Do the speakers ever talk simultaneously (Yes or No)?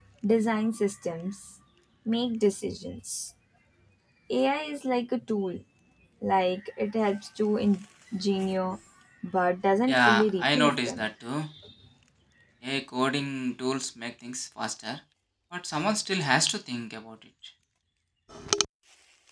Yes